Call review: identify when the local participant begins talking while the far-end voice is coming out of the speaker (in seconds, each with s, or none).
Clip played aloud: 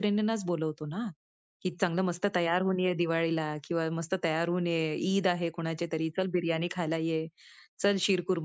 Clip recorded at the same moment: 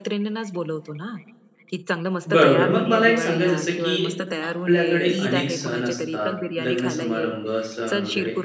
2.3 s